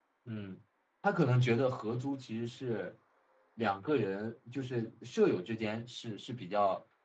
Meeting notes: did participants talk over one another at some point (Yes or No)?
No